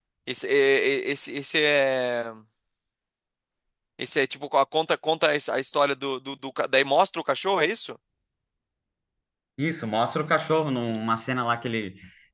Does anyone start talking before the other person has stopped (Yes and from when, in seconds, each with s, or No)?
No